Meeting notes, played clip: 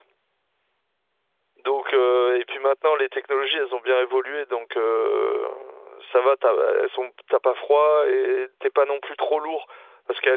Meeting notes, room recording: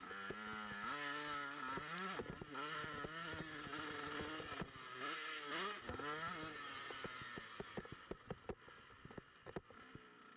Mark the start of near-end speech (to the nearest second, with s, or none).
none